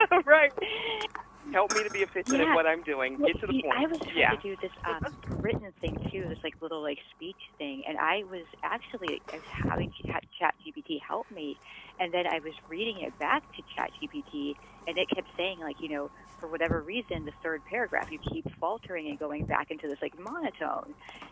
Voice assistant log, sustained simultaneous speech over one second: present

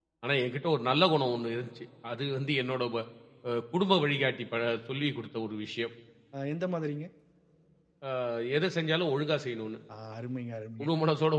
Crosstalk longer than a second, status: none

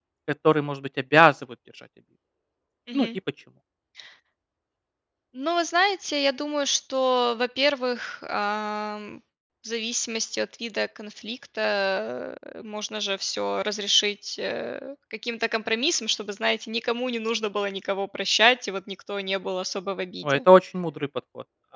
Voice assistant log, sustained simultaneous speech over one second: none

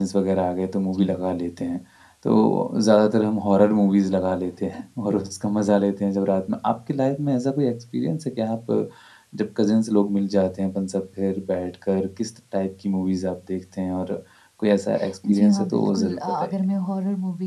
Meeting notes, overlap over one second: present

